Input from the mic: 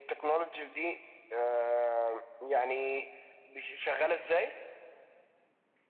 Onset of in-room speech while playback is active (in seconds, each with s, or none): none